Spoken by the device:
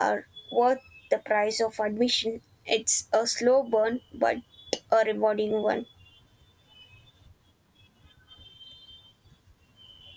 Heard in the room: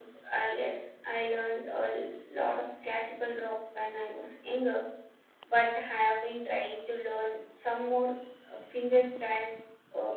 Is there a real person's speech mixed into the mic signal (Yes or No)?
Yes